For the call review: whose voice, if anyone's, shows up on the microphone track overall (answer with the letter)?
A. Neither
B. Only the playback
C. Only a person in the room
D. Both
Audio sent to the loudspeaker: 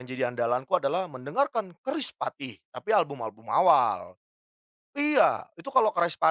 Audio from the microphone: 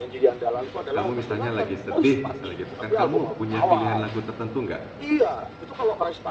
D